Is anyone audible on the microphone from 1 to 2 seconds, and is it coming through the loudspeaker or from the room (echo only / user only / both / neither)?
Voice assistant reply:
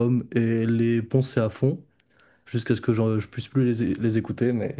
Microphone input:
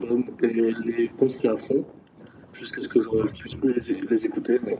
echo only